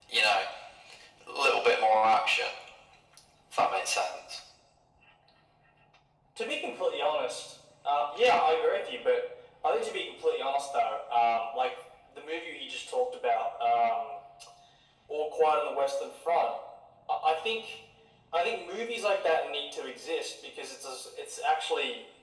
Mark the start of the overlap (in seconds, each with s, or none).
none